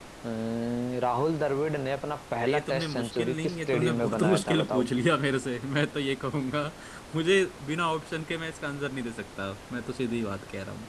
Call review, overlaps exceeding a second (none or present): present